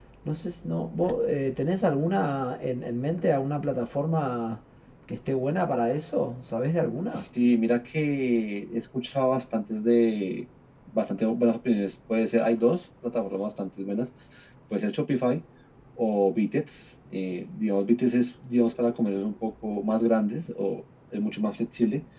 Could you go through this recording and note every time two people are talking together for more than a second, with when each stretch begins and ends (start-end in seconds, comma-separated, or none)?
none